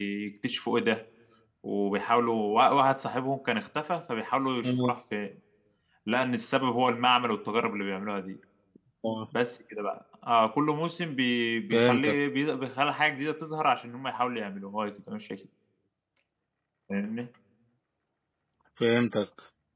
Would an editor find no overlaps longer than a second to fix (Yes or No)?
Yes